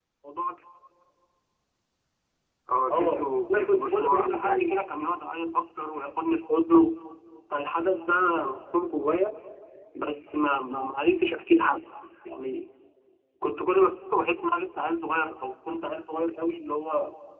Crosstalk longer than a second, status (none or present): present